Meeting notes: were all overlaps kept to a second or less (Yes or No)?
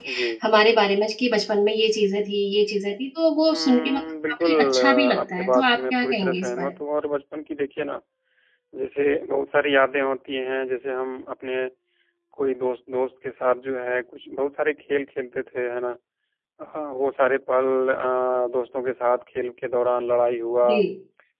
No